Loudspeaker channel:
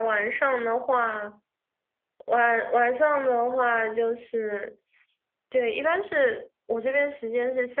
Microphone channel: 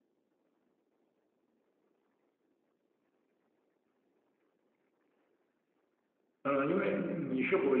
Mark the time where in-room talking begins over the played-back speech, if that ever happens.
6.4 s

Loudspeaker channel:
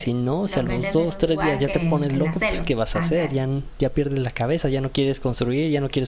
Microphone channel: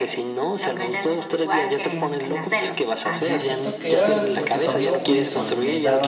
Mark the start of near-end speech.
3.1 s

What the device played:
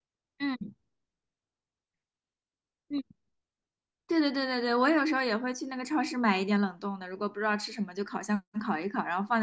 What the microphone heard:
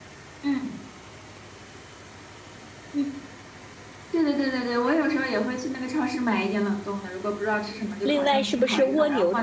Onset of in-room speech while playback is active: 8.0 s

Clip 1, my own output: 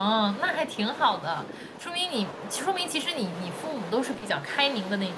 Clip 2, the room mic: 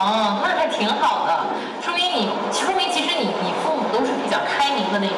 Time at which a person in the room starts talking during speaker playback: none

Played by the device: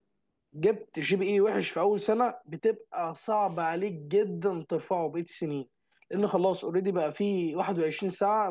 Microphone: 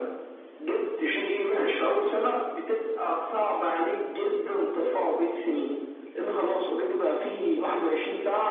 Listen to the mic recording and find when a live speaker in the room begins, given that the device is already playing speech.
none

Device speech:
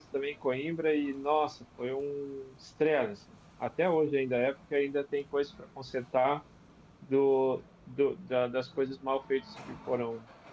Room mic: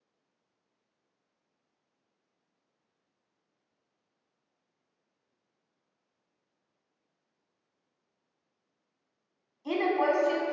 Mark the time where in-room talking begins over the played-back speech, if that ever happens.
9.6 s

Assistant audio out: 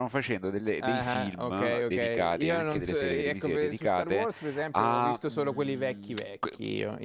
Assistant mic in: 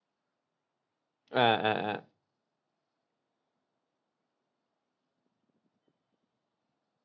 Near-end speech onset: 1.3 s

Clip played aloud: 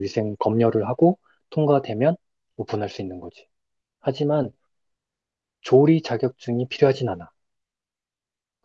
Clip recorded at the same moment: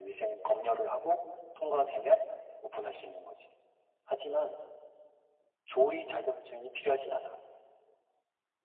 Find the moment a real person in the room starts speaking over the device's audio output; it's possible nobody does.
none

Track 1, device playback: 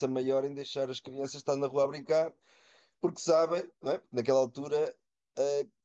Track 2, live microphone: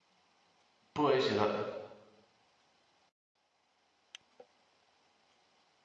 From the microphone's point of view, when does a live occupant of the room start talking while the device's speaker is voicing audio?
0.9 s

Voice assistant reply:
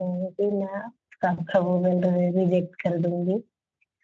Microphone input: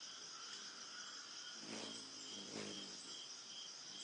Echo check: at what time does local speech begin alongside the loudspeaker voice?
none

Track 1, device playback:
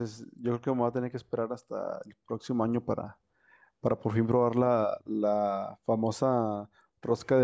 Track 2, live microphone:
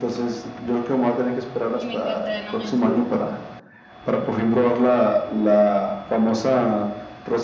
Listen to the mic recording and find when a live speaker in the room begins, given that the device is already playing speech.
1.7 s

